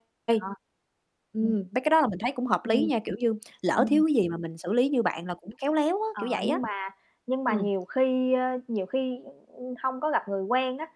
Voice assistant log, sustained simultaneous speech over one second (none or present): none